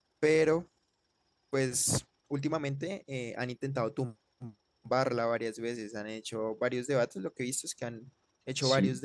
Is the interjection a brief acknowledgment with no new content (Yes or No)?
Yes